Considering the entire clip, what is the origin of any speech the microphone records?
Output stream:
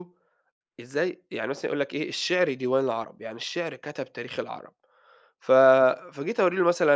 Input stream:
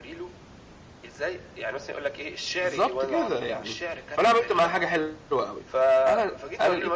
both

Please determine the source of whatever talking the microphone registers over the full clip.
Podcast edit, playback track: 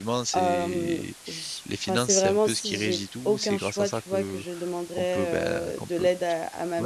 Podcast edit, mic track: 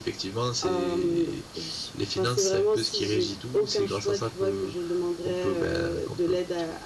echo only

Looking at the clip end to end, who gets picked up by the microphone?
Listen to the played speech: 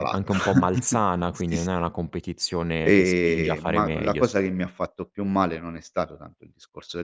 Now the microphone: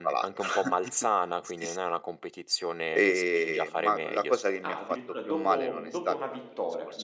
both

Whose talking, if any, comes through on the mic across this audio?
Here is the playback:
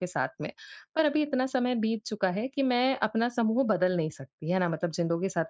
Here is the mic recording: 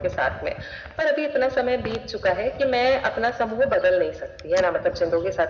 echo only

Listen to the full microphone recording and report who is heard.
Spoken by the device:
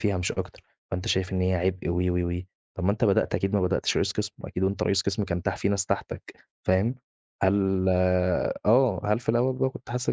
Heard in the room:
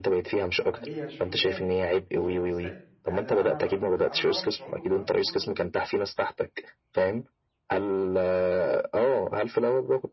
both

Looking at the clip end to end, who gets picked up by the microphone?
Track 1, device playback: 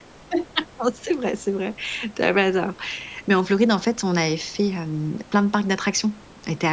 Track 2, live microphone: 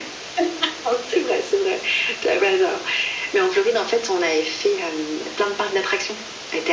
echo only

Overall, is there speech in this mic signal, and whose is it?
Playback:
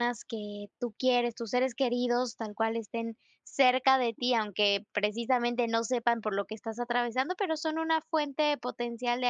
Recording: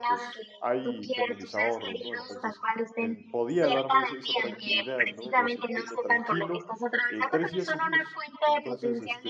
both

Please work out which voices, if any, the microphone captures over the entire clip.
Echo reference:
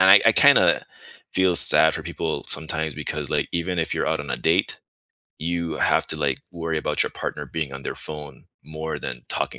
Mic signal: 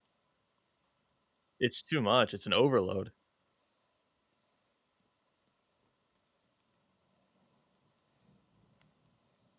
user only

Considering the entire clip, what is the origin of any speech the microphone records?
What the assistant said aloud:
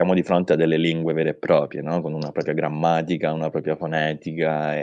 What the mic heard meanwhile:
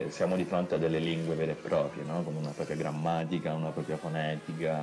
echo only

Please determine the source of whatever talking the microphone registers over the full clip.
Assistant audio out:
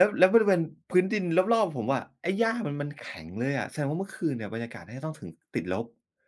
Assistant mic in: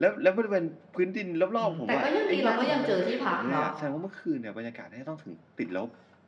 both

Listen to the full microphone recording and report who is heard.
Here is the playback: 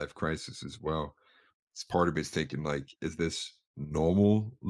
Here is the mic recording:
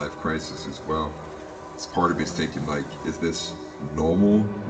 echo only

